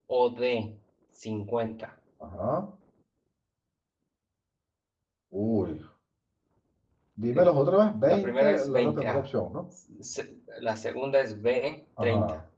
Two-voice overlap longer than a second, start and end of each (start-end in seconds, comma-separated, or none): 8.0-9.2